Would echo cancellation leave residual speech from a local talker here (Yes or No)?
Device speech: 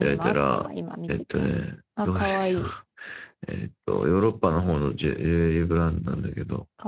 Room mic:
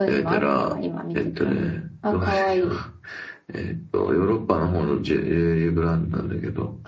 No